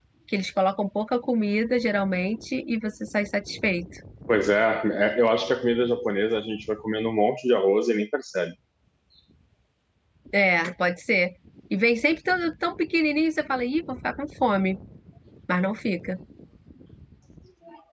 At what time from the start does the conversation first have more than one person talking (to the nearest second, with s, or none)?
none